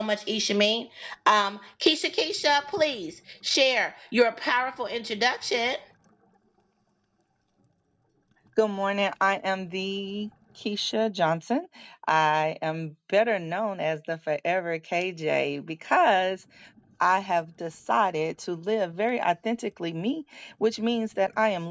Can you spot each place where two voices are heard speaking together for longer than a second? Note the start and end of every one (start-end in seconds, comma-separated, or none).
none